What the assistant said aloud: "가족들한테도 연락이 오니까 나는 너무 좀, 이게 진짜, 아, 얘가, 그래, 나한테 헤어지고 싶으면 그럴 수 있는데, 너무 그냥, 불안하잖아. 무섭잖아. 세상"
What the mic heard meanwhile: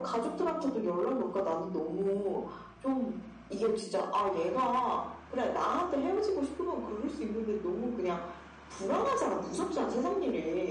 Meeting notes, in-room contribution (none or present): none